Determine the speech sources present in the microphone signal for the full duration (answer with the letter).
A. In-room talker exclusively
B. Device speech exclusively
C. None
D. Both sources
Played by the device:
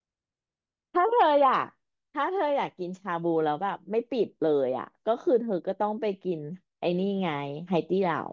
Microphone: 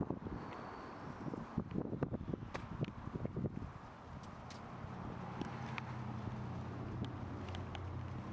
C